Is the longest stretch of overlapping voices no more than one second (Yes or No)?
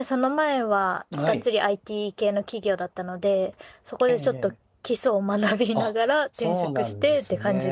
No